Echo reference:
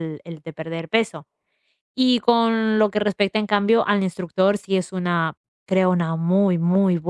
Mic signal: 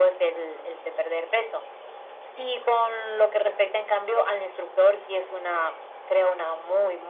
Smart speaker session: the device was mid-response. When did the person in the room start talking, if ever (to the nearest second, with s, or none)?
none